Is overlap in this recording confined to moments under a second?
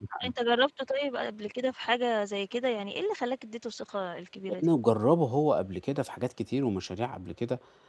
Yes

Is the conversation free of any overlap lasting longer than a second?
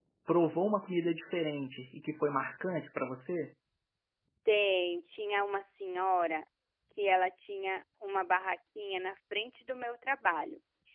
Yes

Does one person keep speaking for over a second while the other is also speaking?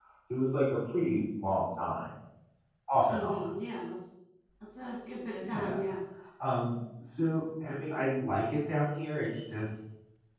No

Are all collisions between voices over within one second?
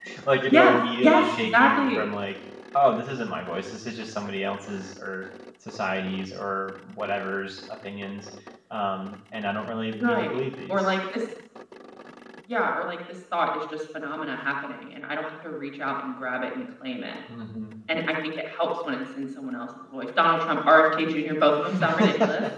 No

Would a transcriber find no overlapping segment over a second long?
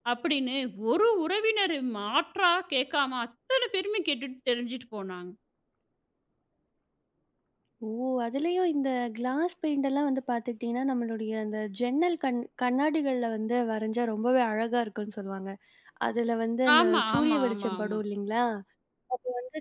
No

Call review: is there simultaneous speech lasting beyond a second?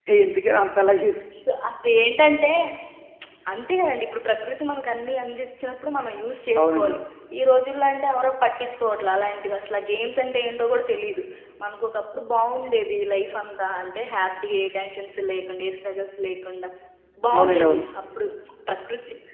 No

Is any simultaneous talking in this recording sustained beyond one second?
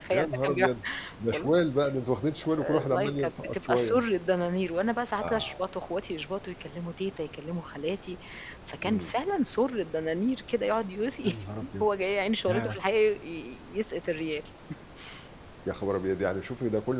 Yes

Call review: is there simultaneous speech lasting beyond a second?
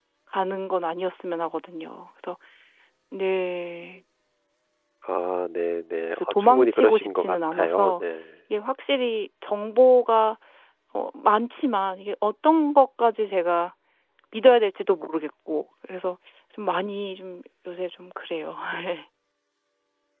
Yes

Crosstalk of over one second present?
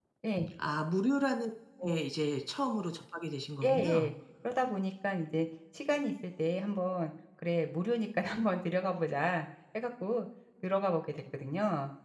No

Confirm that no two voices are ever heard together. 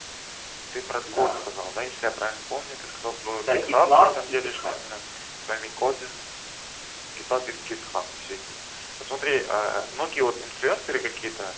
No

